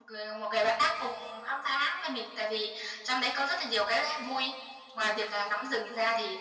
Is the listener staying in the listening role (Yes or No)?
Yes